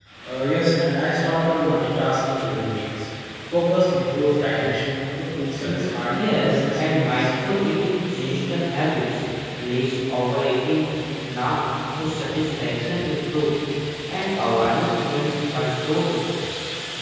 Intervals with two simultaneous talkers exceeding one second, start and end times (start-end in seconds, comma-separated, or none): 5.6-7.3